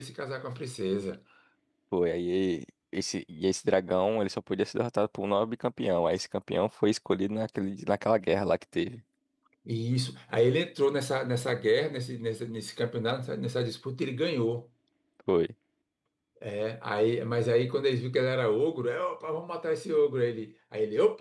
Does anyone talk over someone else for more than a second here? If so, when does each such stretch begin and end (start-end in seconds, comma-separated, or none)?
none